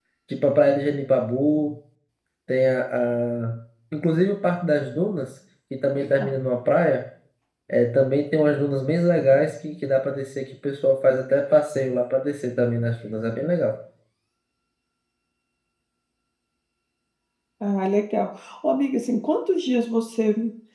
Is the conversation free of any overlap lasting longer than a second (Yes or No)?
Yes